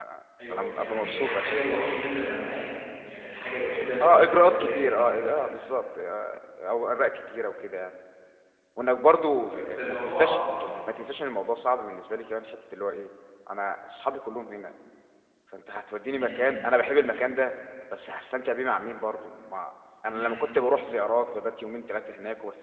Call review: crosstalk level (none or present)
present